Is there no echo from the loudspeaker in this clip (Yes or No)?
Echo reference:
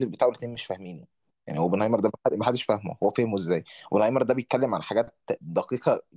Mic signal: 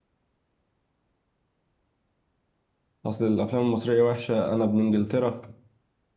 Yes